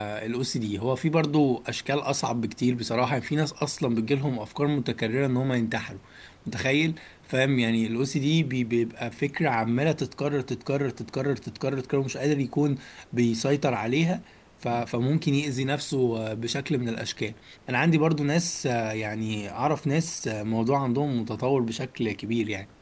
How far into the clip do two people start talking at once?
none

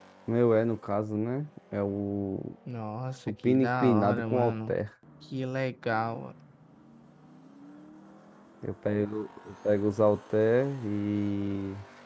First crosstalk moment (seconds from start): 3.4 s

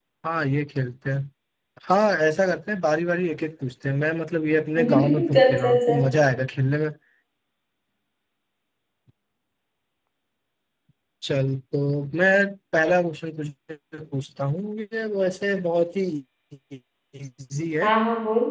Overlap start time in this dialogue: 4.8 s

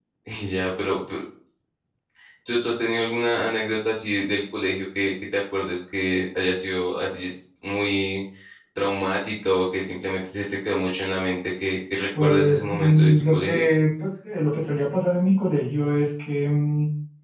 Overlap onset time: 12.1 s

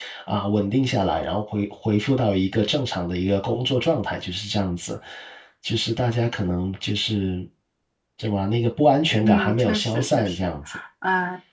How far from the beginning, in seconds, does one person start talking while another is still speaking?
9.2 s

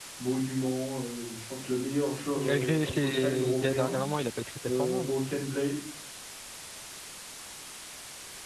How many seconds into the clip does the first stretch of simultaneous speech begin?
2.4 s

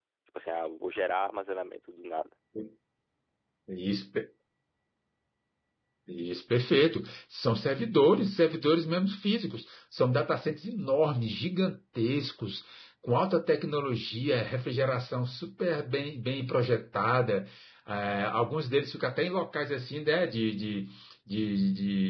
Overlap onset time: none

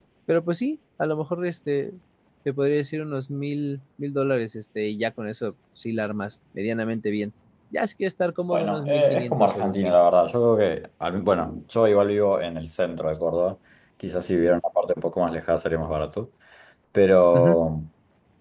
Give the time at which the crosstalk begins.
8.5 s

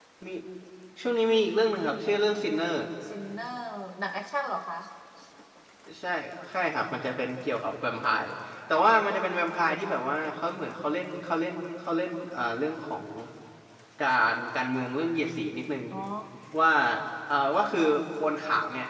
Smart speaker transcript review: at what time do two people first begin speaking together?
none

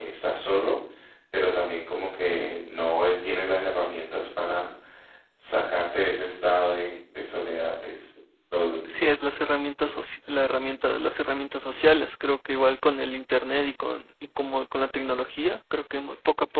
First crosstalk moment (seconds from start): none

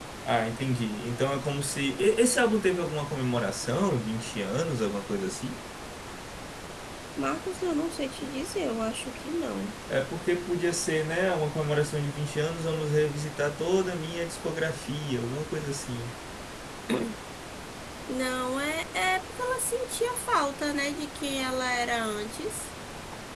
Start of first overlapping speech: none

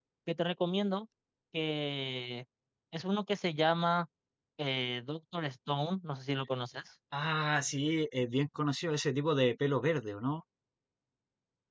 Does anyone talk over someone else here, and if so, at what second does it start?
none

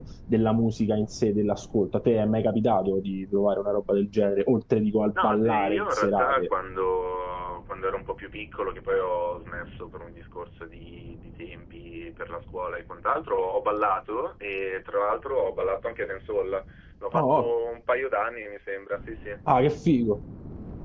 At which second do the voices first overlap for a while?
5.2 s

